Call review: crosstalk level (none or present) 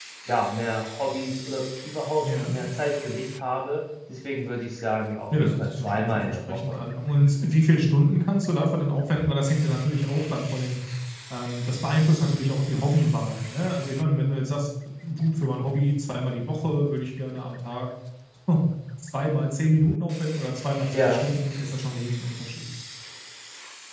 present